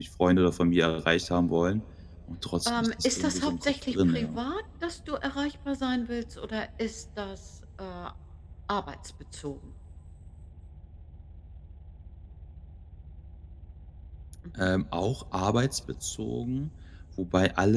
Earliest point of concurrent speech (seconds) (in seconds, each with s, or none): 2.7 s